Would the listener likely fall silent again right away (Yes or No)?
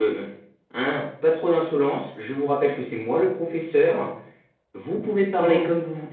Yes